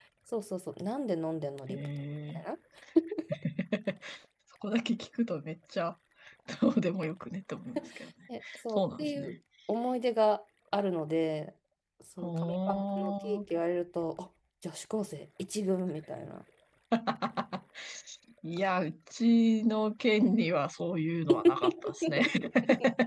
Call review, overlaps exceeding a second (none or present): present